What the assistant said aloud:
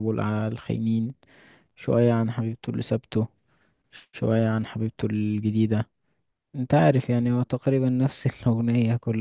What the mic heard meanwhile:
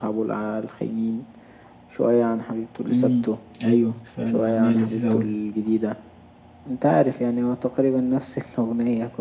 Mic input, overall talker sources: both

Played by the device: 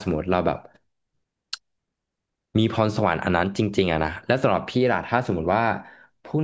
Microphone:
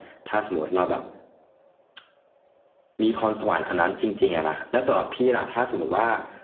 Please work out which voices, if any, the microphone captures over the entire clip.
echo only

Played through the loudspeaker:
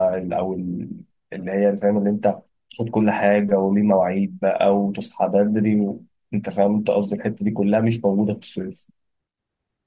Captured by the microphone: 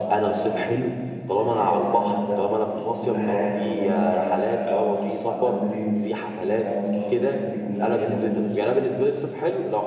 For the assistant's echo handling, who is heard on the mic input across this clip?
both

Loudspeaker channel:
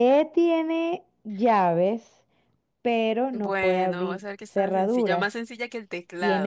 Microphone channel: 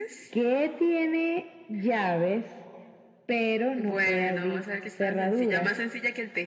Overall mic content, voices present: echo only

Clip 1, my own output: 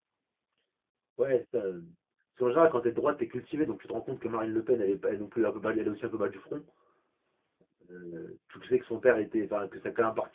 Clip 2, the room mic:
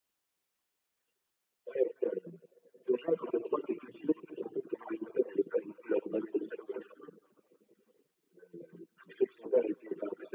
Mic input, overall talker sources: echo only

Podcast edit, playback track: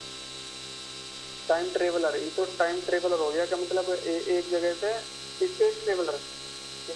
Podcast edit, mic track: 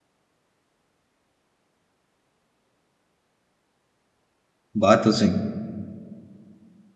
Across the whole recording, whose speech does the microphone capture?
user only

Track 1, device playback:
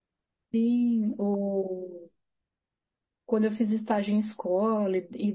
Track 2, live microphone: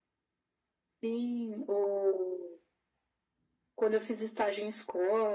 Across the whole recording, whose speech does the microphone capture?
echo only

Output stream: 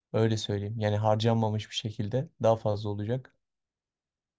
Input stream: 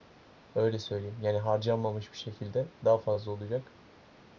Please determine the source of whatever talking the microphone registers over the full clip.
echo only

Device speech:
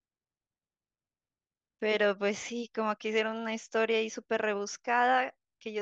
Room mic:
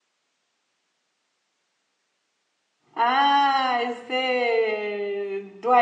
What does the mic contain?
user only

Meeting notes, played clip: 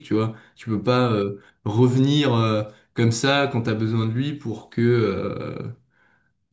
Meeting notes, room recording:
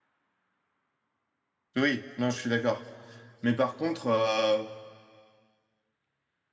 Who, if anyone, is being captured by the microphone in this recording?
user only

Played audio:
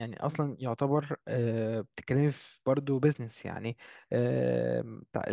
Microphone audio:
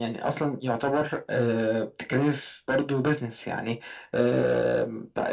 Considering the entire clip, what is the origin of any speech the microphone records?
echo only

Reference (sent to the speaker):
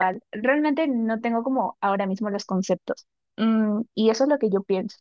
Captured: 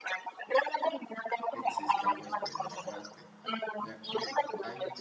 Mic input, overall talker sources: both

